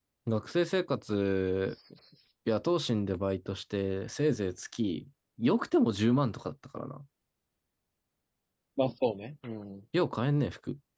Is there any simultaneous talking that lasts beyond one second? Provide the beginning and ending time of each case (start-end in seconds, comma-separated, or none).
none